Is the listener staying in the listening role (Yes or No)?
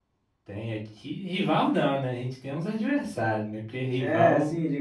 No